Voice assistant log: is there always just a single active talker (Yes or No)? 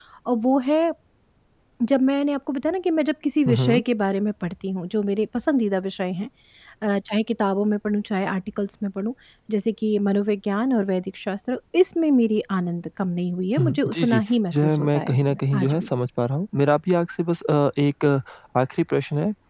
No